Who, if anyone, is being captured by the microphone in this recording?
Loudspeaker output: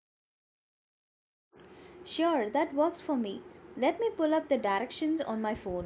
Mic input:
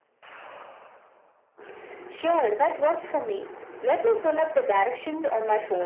echo only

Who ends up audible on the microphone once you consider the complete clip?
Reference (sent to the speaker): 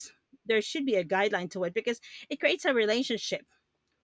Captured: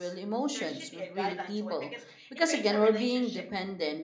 both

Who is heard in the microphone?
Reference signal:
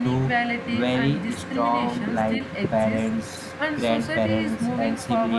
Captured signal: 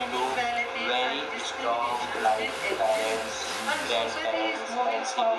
echo only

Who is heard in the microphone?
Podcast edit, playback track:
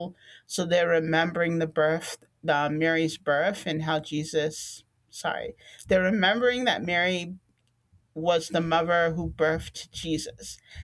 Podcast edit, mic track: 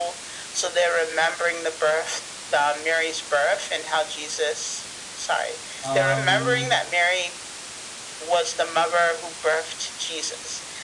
both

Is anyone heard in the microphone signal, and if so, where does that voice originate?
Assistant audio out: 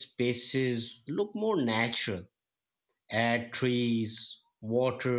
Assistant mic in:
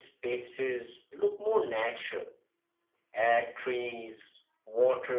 echo only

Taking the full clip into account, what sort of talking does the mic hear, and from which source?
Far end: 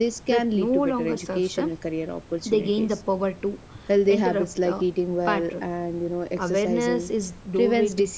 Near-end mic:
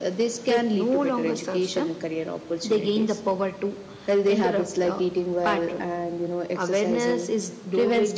echo only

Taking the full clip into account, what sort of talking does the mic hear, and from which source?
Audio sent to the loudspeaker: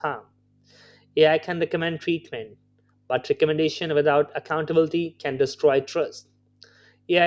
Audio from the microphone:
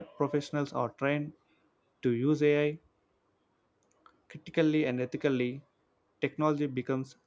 user only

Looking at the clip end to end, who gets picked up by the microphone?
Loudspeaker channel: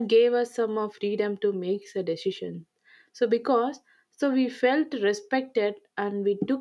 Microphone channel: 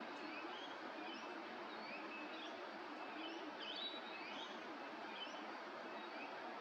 neither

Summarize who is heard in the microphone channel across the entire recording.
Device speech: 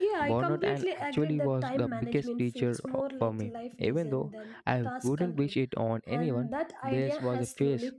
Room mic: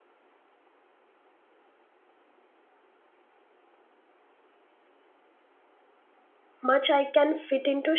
user only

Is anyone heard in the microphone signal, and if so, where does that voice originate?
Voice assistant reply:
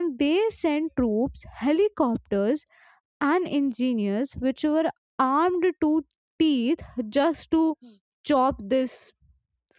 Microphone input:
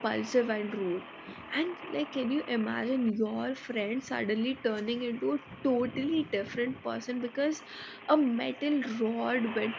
user only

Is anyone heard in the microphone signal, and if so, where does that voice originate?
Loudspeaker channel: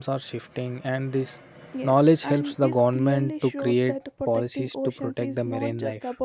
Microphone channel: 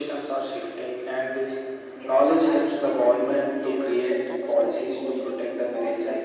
both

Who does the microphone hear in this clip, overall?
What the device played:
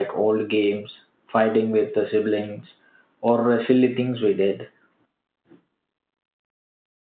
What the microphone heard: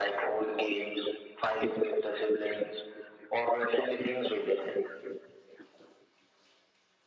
echo only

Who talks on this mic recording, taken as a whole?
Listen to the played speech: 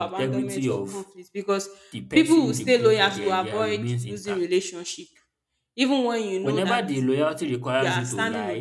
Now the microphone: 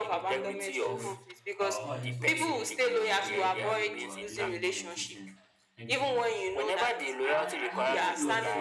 both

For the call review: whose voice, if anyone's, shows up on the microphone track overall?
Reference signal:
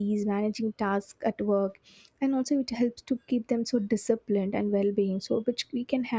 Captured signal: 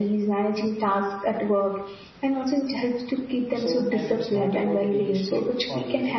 both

